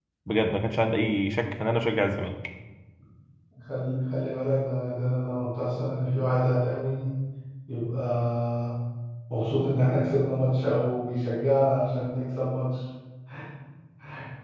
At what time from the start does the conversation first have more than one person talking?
none

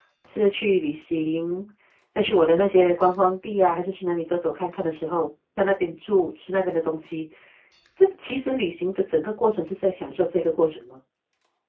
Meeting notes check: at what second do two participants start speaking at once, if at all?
none

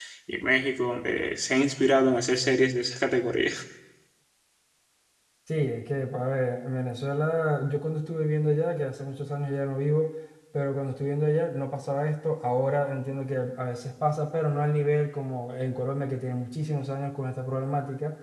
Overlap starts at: none

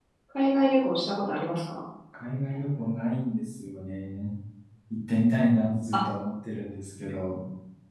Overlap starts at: none

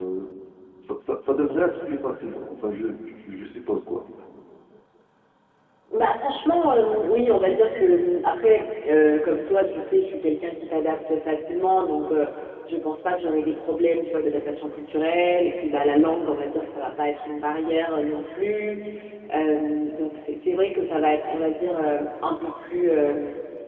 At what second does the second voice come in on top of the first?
none

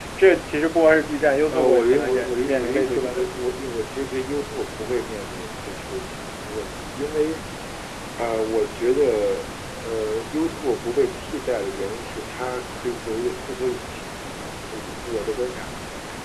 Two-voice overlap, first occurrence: 1.5 s

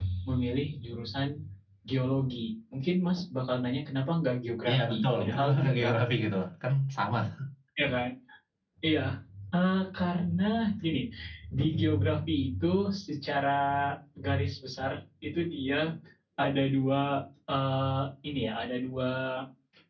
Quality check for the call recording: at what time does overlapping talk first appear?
4.7 s

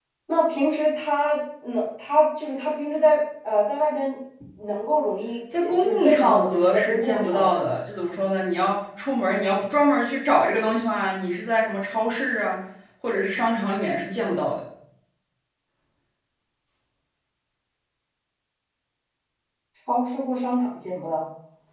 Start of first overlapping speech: 5.5 s

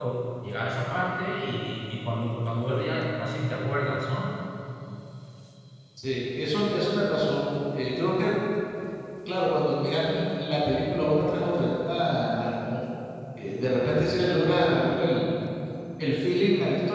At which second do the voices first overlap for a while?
none

